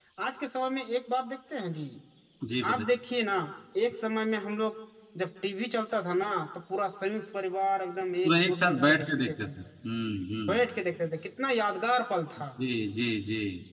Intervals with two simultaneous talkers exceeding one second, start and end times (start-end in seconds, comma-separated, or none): 8.2-9.5